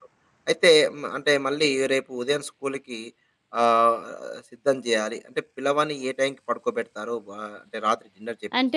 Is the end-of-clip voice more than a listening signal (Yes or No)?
Yes